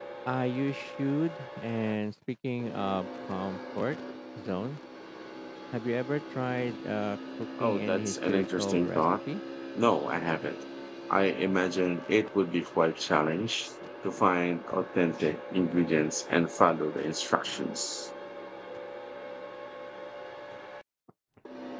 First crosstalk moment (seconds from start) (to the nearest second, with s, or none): 8 s